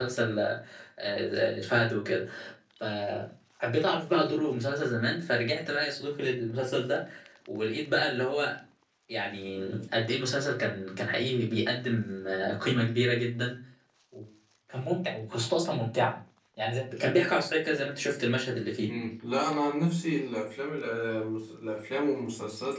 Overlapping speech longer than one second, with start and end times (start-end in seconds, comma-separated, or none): none